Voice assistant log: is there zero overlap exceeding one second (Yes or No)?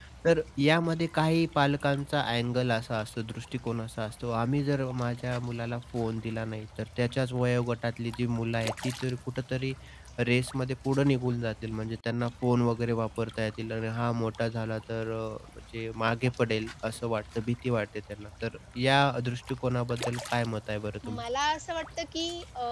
Yes